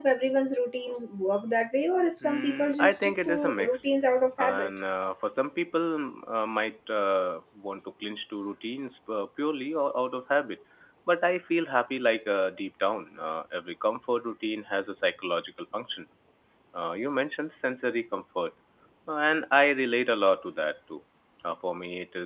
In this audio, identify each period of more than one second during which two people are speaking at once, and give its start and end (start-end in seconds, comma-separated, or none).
2.2-3.9